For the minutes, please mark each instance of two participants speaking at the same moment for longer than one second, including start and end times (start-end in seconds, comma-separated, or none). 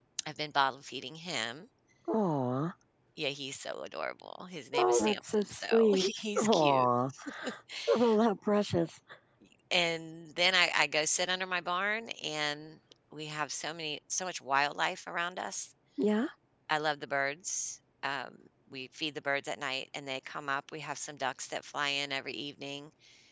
4.8-6.9